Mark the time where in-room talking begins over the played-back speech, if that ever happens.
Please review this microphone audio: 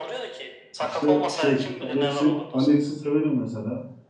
0.8 s

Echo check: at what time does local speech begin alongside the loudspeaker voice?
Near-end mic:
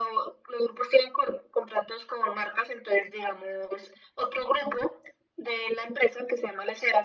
none

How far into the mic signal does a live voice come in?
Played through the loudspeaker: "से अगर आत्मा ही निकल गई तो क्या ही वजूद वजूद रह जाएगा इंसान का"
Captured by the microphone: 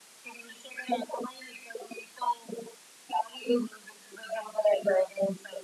none

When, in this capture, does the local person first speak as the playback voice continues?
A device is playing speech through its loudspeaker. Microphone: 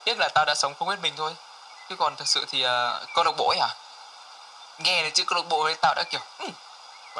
none

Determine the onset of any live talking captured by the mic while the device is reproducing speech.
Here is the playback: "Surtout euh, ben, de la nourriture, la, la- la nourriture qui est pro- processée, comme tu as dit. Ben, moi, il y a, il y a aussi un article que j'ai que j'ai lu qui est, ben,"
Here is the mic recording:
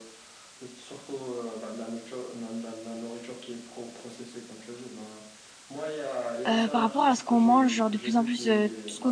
6.5 s

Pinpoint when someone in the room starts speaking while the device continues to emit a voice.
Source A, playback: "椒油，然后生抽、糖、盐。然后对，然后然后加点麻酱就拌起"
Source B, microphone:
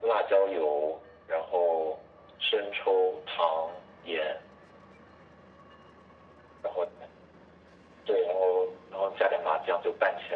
none

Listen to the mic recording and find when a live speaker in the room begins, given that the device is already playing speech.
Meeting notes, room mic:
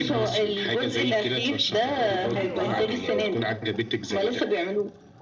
2.0 s

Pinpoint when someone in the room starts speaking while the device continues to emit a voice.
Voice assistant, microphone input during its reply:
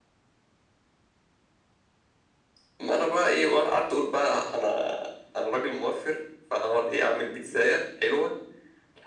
none

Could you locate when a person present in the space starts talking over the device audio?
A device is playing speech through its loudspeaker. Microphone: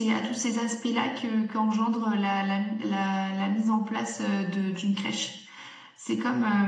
none

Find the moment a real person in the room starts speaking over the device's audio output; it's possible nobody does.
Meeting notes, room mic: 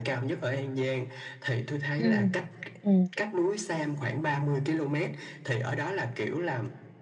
2.0 s

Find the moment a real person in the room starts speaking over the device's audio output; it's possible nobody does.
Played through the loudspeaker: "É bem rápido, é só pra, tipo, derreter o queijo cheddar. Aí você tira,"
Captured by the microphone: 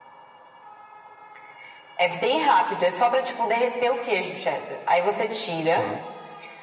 5.7 s

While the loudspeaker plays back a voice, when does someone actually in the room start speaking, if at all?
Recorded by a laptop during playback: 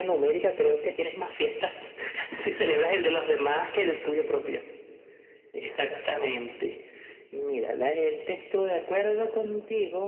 none

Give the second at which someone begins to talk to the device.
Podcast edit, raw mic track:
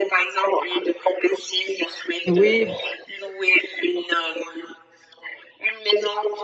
2.3 s

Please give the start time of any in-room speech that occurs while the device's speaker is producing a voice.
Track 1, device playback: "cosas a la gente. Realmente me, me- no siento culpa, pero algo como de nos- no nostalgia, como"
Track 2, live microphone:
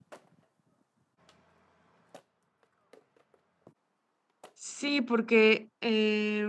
4.5 s

